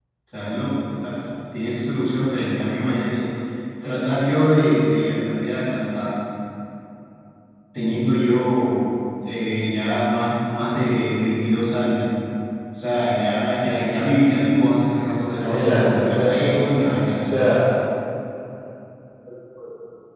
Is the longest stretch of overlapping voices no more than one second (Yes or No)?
No